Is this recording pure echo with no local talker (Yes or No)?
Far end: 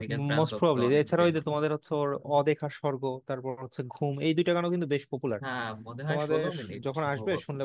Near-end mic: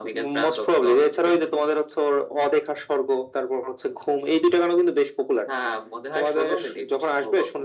Yes